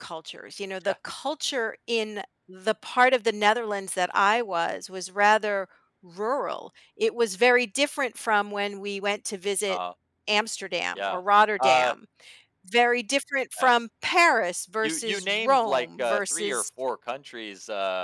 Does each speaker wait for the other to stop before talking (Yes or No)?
No